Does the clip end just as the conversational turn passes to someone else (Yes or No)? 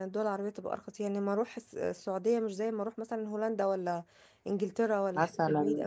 Yes